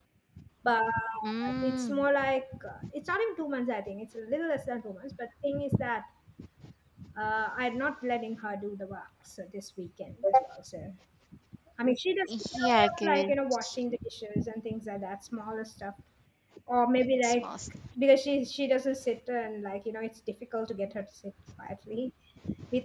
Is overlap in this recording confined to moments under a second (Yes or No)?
No